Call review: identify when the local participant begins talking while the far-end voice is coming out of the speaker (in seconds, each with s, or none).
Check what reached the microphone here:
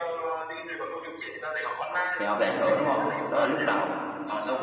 2.2 s